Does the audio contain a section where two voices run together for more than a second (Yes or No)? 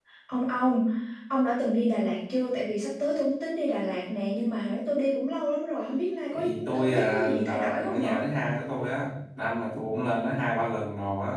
Yes